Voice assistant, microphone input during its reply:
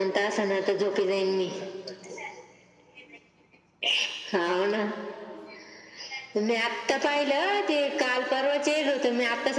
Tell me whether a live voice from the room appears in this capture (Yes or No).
No